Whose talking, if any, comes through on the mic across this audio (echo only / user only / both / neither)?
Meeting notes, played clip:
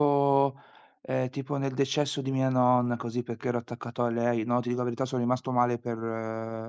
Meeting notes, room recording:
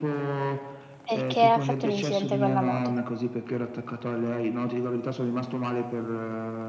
both